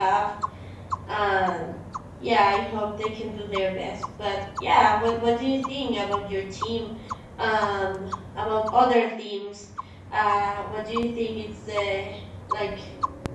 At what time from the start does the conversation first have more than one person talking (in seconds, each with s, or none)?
none